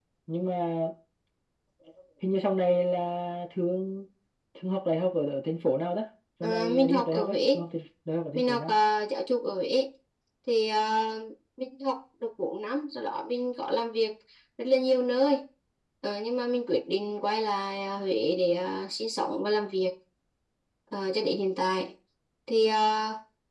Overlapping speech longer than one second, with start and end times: 6.4-7.6

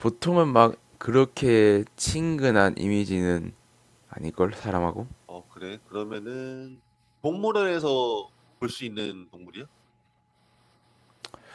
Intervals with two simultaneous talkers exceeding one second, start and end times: none

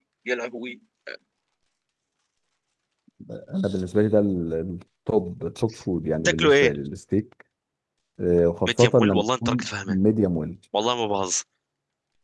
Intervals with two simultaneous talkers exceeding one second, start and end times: 8.7-10.0

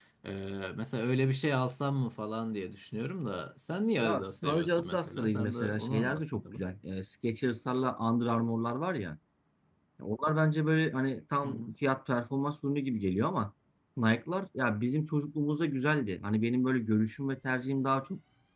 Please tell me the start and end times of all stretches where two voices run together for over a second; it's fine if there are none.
4.0-6.6

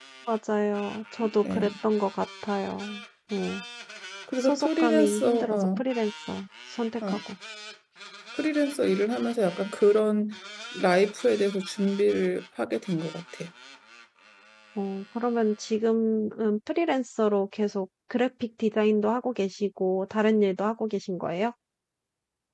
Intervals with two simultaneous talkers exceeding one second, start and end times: 4.4-5.8

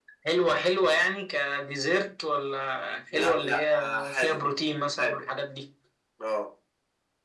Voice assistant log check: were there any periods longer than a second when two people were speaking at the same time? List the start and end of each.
3.1-4.4

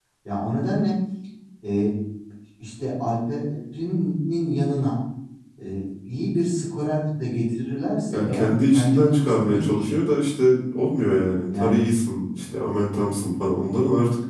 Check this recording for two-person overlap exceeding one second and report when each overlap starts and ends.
8.1-10.0

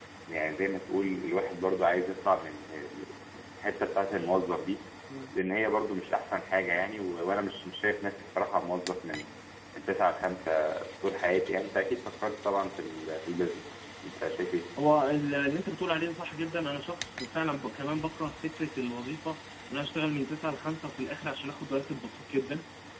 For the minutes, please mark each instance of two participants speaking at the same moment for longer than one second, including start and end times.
none

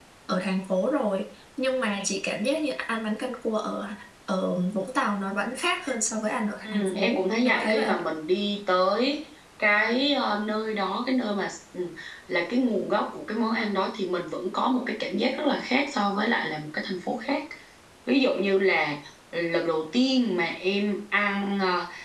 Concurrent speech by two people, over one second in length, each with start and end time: 6.6-8.0

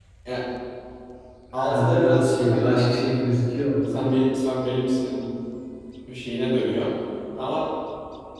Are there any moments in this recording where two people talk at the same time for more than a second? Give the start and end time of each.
1.6-3.1

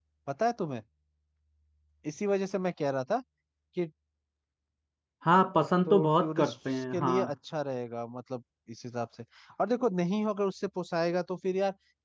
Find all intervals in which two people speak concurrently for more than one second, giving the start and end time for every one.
5.9-7.3

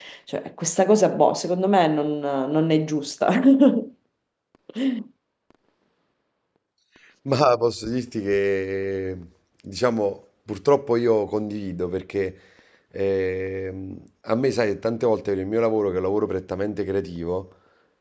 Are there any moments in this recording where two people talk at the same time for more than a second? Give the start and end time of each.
none

